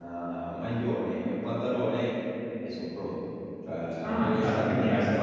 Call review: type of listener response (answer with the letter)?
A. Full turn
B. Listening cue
A